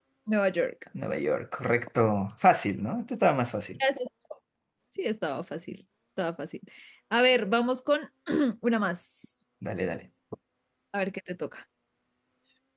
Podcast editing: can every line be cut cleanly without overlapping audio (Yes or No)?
Yes